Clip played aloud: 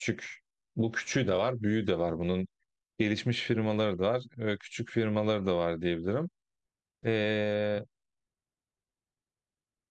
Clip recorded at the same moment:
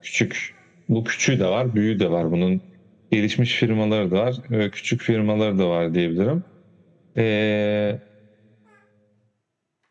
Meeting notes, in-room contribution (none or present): none